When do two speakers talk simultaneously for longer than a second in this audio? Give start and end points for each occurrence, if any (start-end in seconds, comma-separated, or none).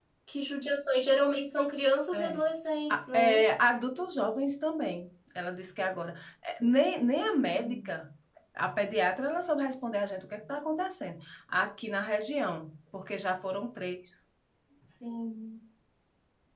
none